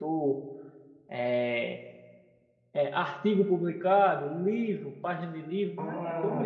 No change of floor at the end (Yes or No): No